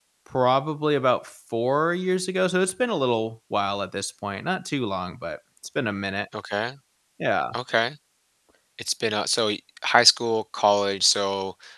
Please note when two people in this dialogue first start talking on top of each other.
none

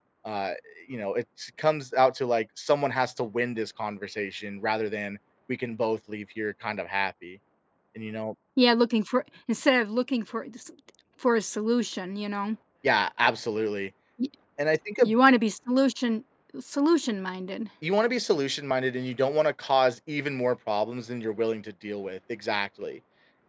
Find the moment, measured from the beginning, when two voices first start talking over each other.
none

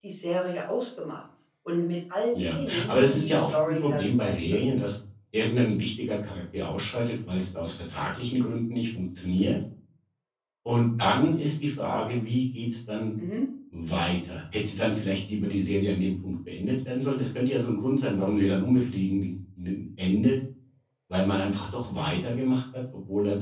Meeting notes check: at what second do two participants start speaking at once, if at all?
2.3 s

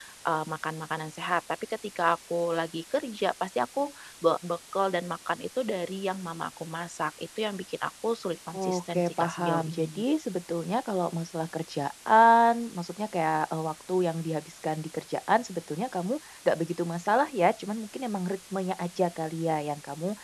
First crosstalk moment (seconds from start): 8.5 s

